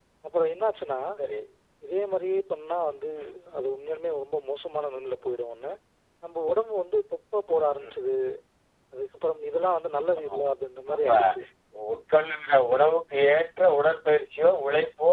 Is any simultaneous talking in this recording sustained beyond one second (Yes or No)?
No